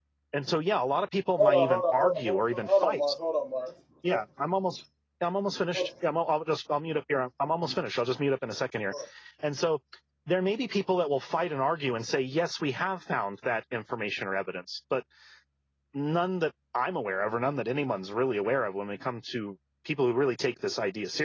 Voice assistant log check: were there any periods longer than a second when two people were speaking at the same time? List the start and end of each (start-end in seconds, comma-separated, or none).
1.4-3.0